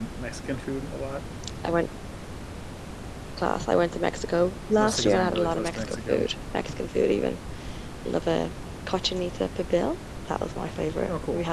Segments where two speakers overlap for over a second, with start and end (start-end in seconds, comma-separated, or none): 4.8-6.3